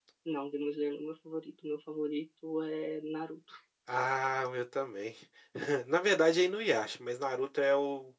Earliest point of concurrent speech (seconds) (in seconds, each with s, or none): none